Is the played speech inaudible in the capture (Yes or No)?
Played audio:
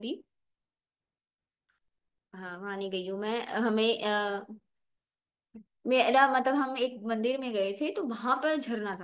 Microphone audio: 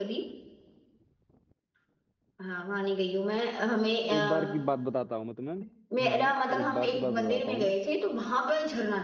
No